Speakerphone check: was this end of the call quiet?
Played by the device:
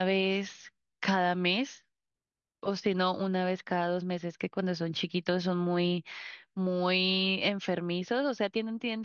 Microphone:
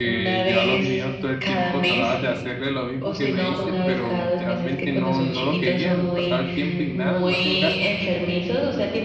No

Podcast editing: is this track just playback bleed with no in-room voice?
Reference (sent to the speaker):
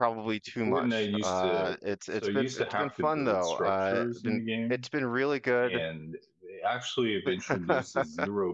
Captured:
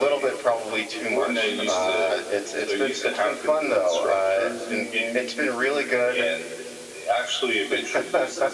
Yes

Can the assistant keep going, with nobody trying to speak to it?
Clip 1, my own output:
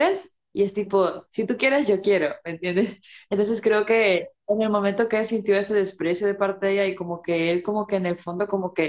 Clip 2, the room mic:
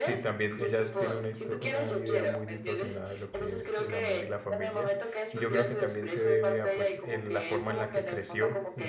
No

